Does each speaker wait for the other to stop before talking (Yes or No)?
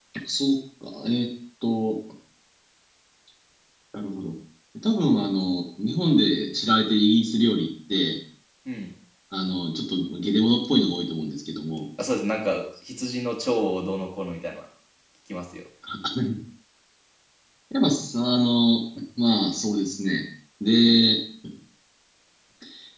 Yes